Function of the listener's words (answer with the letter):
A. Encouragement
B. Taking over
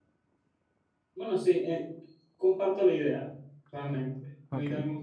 A